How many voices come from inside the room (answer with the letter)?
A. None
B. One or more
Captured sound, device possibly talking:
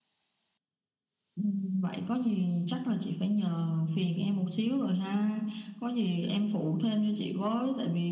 A